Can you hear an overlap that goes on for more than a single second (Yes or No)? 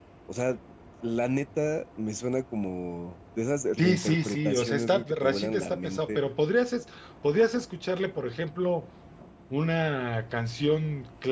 Yes